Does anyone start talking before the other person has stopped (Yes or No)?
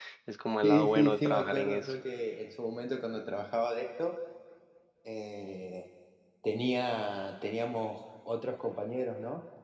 Yes